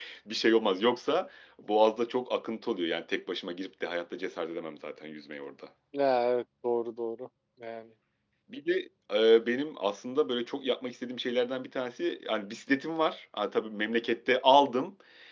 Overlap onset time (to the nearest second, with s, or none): none